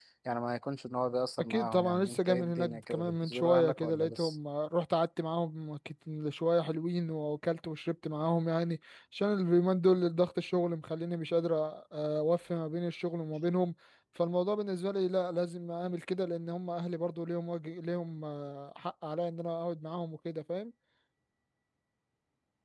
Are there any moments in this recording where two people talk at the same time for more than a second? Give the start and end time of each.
1.4-4.3

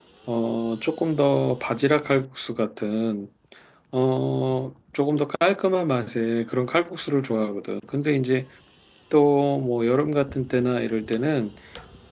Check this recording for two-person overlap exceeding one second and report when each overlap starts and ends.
none

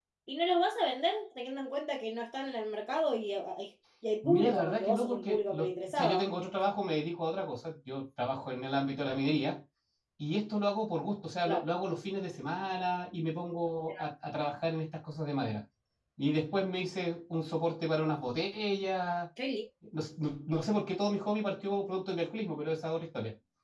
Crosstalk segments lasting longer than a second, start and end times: 4.2-6.3

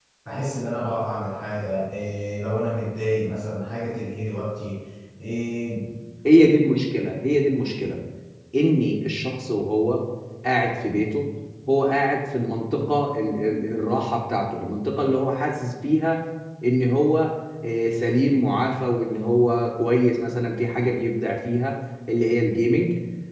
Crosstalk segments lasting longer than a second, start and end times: none

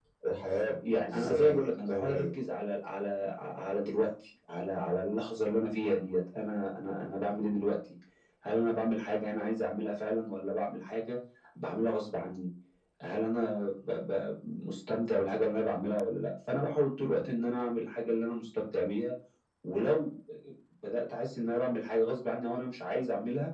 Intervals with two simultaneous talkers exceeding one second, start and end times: 1.1-2.3

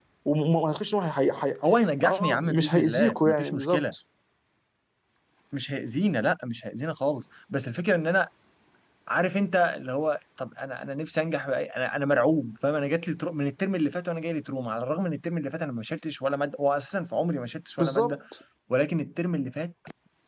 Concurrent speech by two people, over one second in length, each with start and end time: 2.0-3.8

